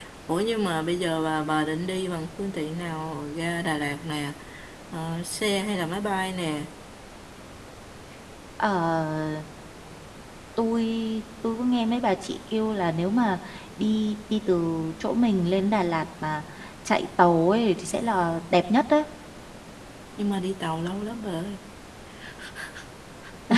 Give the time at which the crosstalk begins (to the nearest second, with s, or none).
none